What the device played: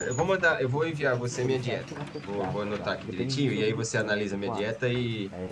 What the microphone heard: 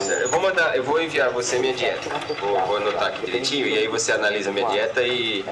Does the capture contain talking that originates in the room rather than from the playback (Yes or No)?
No